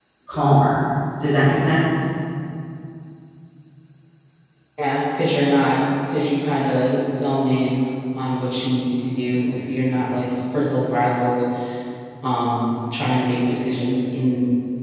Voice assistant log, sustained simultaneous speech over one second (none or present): none